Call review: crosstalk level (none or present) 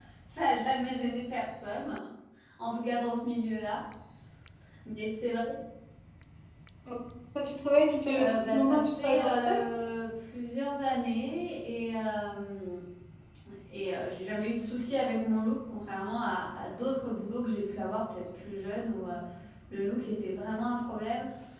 present